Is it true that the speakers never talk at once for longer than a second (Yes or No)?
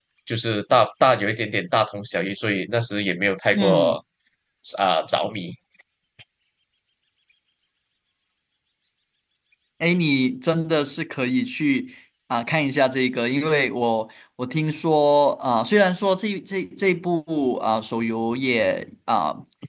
Yes